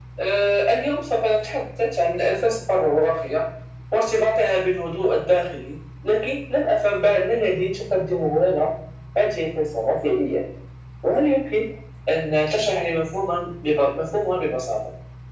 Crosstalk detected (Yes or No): No